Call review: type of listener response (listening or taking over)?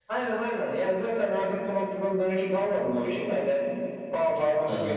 listening